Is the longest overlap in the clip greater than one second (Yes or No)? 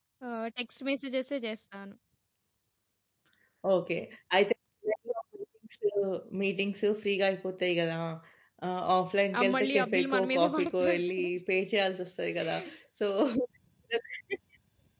Yes